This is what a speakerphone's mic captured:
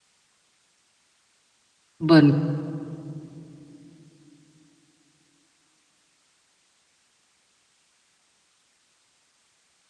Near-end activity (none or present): present